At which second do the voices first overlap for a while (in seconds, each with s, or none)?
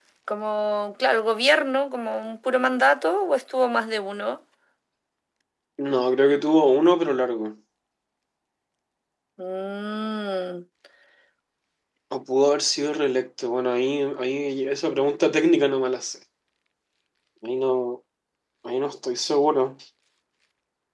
none